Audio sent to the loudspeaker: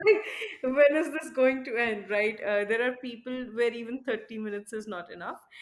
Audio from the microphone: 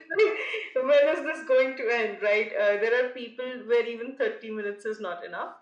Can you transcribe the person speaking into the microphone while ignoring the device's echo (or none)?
none